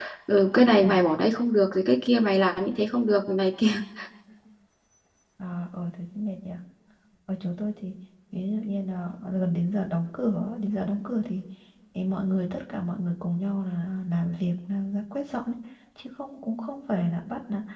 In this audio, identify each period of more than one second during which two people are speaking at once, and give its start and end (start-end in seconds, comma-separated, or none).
none